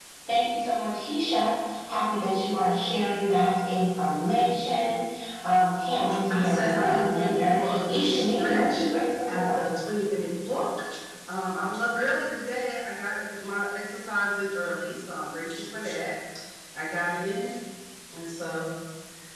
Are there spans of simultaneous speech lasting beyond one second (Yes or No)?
Yes